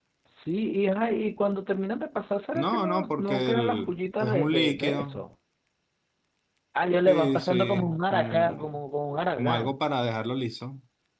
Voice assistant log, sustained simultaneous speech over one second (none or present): present